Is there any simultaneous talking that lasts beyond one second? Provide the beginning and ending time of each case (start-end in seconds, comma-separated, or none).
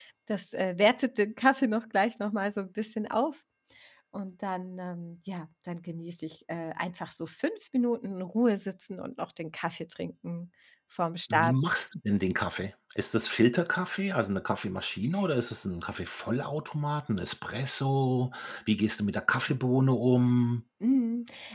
none